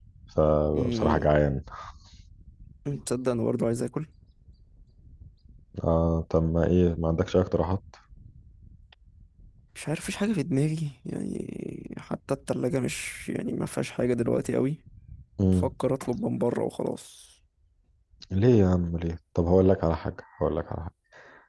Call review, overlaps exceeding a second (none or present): none